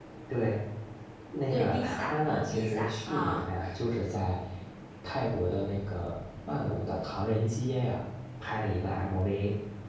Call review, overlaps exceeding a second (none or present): present